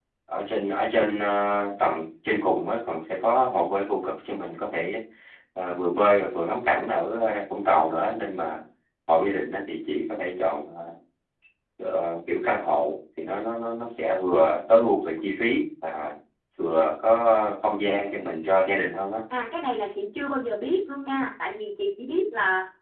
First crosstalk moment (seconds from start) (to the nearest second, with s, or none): none